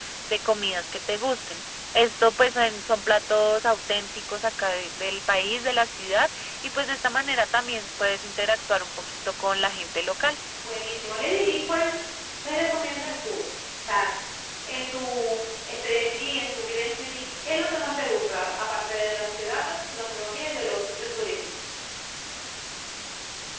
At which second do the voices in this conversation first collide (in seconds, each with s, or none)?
none